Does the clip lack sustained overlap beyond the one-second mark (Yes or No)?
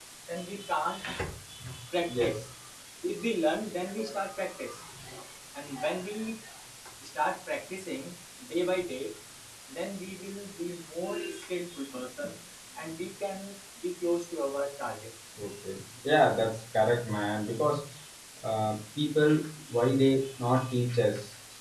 Yes